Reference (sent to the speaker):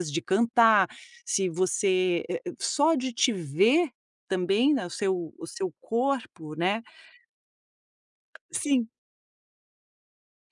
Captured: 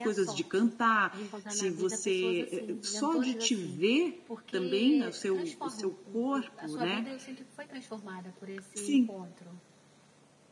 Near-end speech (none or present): present